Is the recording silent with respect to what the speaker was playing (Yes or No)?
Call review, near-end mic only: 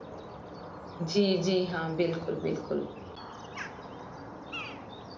Yes